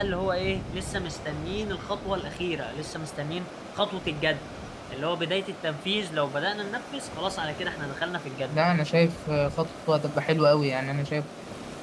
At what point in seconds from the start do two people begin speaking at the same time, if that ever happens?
none

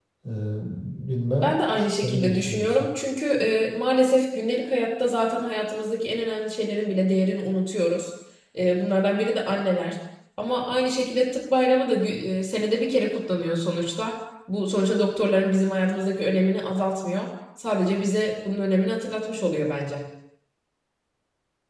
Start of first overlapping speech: 1.4 s

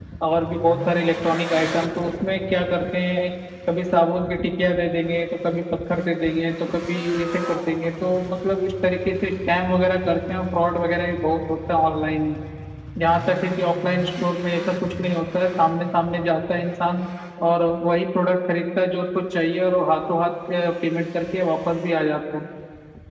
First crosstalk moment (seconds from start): none

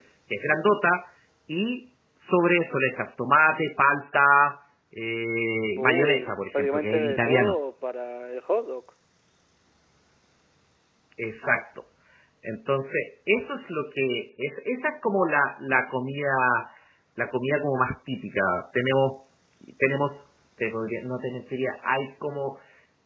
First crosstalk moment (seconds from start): 5.7 s

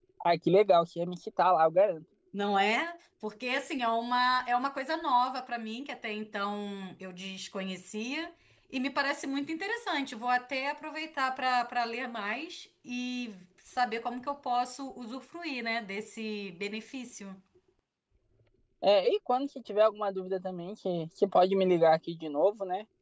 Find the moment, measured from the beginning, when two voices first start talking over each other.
none

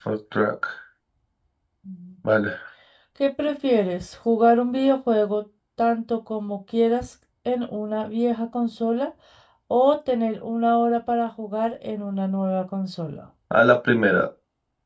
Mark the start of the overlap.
none

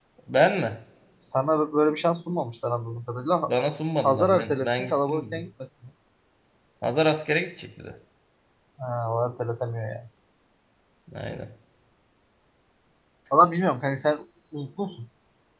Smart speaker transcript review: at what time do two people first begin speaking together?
4.0 s

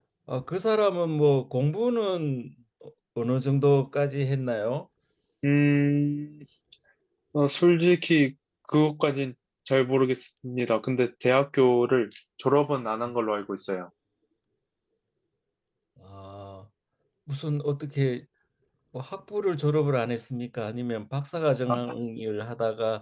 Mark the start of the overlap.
none

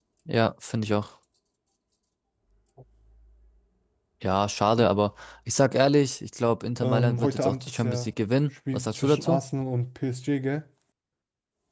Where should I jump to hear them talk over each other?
6.8 s

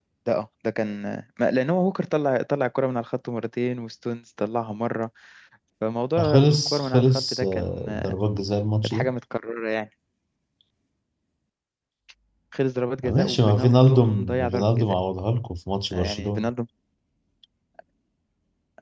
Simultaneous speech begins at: 6.2 s

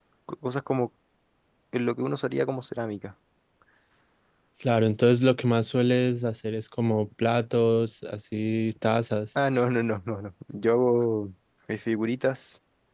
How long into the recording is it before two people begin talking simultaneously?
none

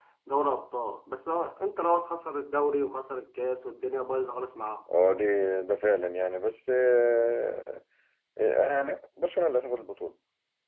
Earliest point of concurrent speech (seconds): none

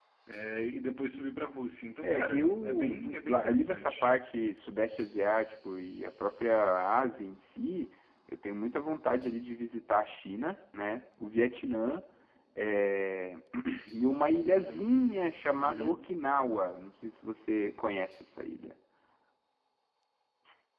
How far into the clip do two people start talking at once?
2.0 s

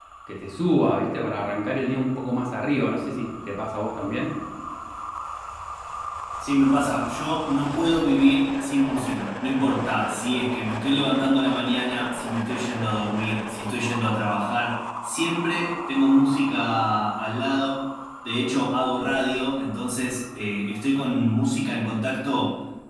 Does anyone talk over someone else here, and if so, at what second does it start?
none

